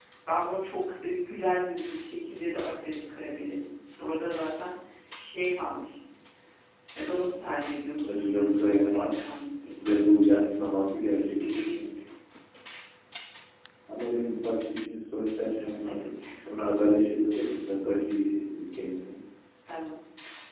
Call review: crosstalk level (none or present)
present